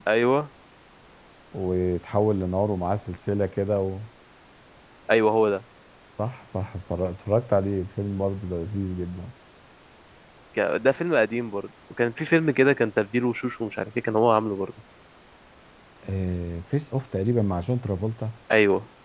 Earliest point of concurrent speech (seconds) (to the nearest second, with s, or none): none